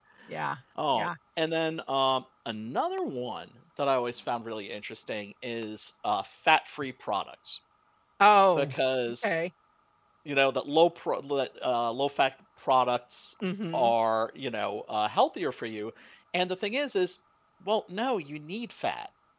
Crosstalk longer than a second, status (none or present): none